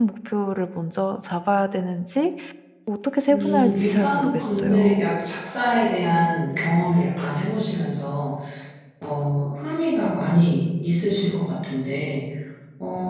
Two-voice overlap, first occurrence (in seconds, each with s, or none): 3.3 s